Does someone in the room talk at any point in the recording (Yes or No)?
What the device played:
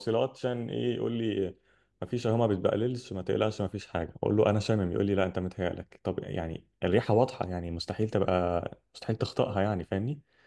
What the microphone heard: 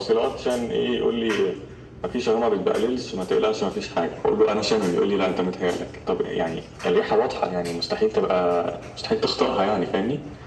No